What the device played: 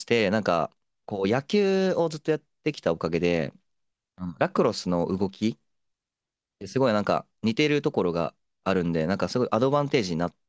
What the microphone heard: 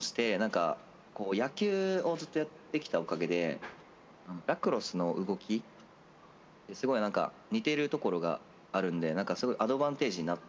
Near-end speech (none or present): none